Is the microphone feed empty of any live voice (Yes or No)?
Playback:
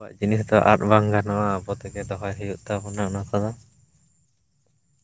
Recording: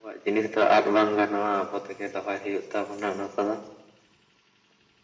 Yes